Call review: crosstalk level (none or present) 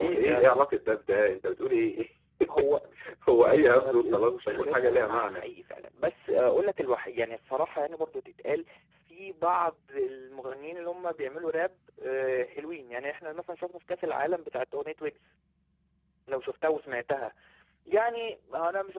present